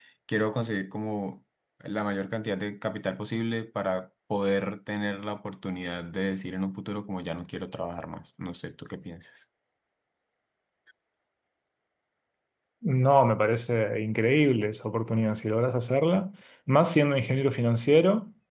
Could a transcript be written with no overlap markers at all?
Yes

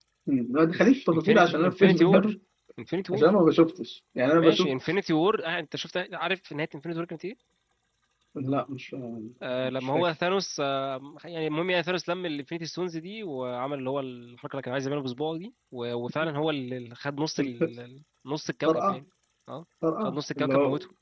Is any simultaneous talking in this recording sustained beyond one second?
Yes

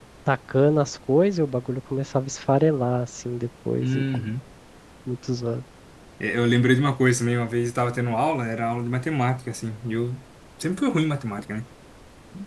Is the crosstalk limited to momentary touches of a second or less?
Yes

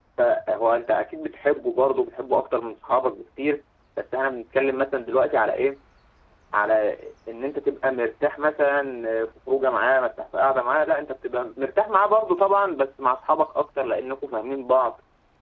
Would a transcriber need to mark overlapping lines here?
No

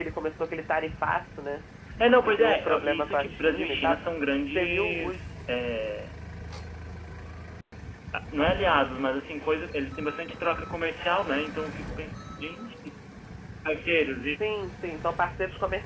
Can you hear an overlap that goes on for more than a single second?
Yes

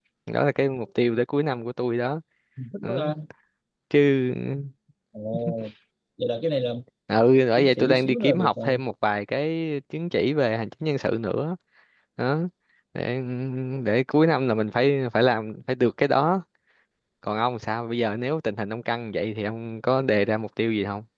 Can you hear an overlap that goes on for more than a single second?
Yes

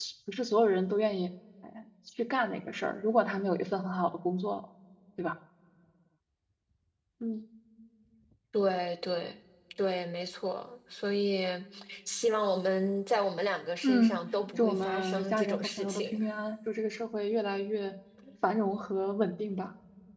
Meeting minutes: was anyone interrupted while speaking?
Yes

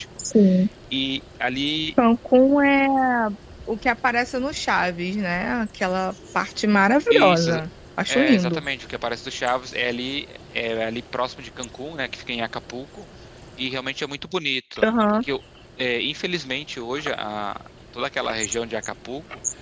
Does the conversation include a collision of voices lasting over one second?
No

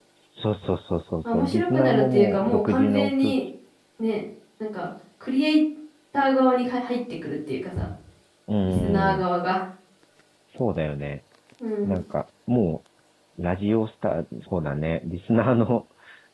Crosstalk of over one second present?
Yes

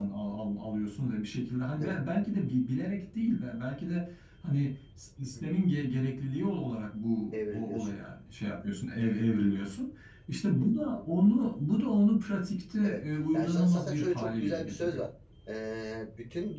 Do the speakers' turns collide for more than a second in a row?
Yes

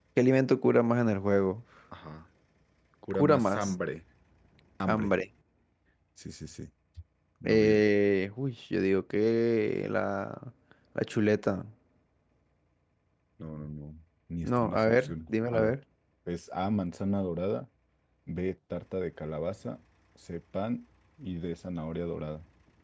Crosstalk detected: Yes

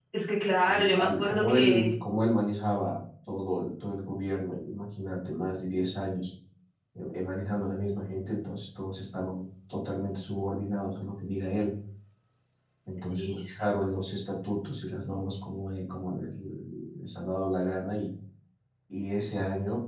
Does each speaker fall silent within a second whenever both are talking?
No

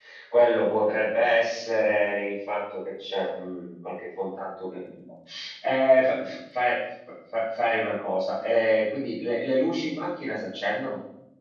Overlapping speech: No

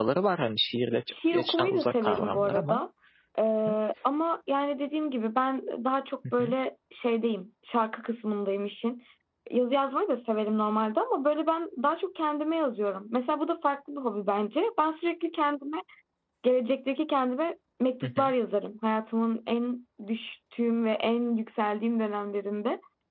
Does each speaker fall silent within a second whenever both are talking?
No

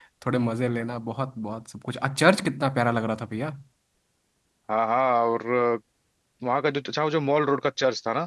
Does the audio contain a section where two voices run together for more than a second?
No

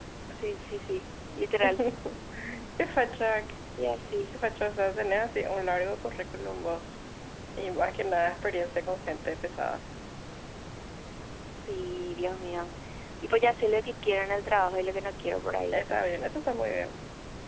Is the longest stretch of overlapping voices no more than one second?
Yes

